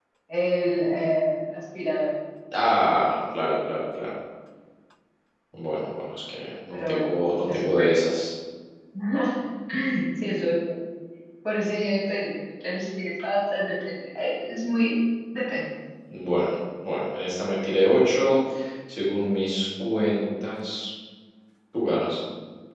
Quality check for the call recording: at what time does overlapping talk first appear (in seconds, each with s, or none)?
6.7 s